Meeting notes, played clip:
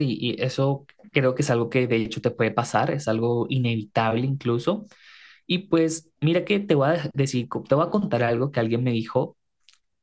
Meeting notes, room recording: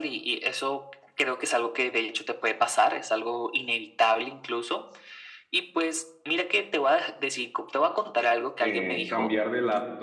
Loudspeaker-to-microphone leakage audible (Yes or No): Yes